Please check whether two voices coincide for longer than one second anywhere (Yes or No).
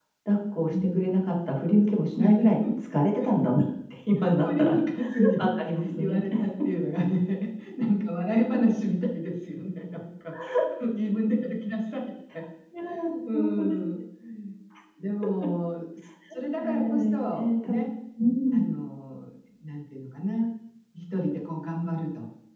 Yes